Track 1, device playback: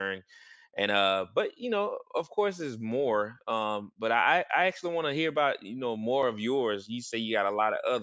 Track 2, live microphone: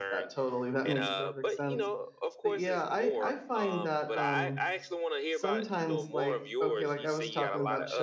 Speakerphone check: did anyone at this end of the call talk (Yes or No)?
Yes